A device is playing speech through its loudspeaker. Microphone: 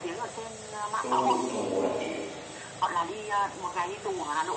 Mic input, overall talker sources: both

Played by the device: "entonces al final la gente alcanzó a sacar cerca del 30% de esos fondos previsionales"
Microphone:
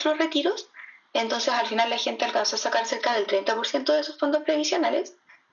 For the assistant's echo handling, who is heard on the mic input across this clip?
echo only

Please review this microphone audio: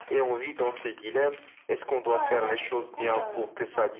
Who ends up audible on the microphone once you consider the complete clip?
both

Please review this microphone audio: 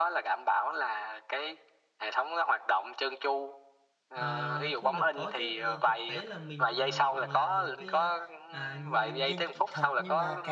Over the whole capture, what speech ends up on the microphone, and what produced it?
both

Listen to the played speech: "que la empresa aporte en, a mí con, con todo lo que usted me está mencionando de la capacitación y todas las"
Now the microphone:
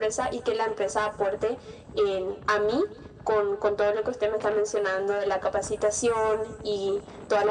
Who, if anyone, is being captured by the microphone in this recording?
echo only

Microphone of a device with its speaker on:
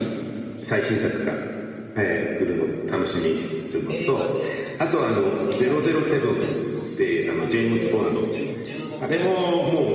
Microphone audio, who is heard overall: both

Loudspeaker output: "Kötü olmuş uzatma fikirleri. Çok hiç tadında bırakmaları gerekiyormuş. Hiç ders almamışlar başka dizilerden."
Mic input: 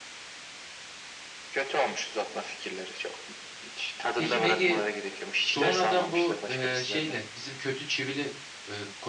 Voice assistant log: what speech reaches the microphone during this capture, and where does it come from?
both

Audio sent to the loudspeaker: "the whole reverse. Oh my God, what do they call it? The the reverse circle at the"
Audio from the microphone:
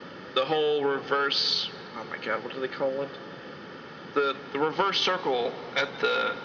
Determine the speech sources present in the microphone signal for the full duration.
echo only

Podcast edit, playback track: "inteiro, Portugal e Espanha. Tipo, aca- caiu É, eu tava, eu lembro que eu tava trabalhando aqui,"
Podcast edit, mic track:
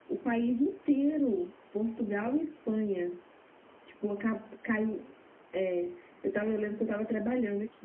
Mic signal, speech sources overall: echo only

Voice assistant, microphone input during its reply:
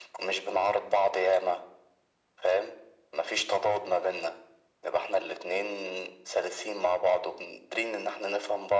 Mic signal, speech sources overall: echo only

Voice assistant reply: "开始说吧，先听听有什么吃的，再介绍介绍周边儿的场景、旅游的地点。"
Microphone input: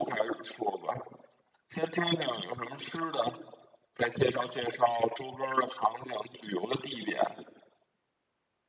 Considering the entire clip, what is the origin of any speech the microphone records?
echo only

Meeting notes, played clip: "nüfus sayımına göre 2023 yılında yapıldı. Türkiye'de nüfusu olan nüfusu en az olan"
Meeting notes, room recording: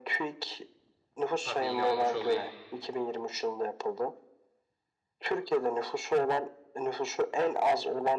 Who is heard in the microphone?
both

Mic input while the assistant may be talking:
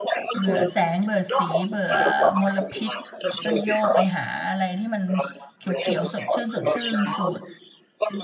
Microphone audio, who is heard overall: both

